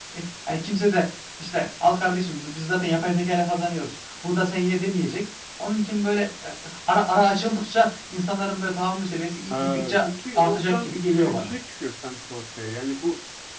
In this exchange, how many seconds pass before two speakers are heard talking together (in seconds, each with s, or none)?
9.5 s